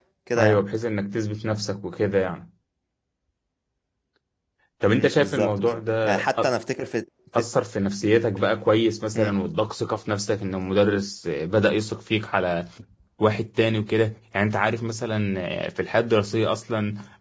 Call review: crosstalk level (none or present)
present